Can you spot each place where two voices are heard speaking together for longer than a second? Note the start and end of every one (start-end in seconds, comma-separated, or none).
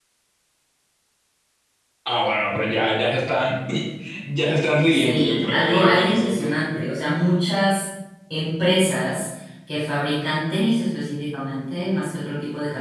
4.9-6.5